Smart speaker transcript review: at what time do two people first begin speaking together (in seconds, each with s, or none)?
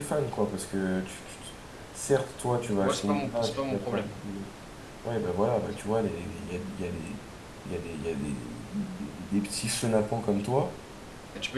2.8 s